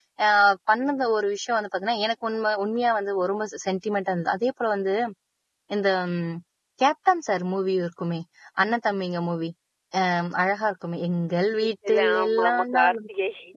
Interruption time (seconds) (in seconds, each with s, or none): 11.6 s